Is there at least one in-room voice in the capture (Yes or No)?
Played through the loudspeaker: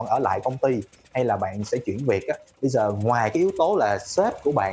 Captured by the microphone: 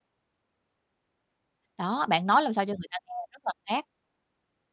Yes